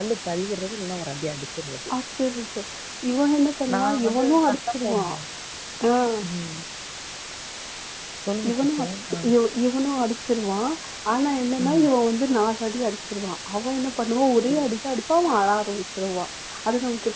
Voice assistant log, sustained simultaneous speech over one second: present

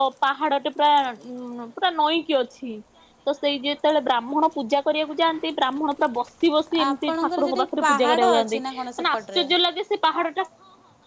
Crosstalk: present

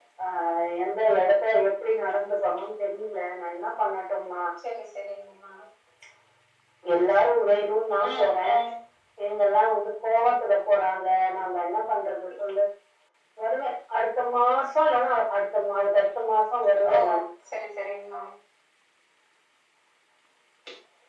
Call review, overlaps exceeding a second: none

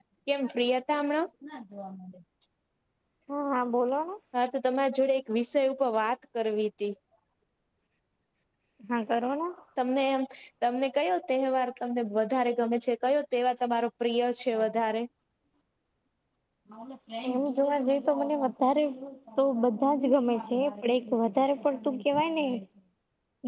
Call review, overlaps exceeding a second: none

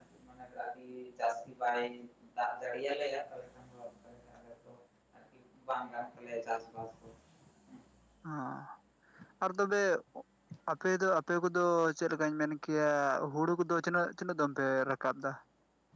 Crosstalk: none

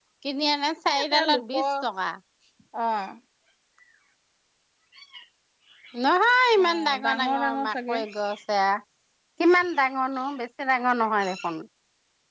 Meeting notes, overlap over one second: present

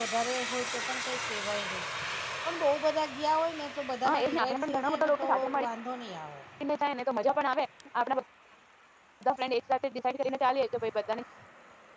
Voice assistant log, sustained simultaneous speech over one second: present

